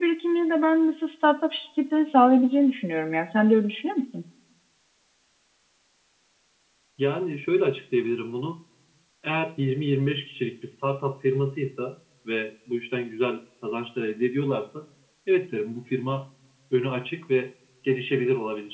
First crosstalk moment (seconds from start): none

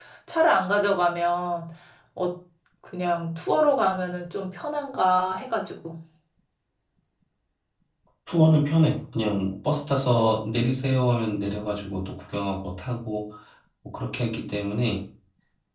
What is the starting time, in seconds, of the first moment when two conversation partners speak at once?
none

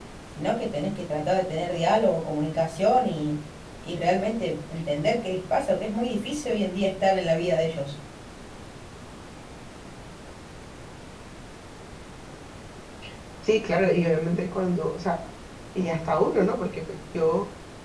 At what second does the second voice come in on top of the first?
none

